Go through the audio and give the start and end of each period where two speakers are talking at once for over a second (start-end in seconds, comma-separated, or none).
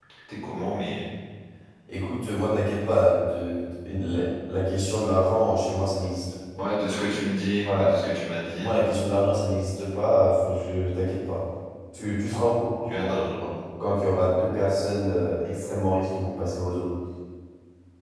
none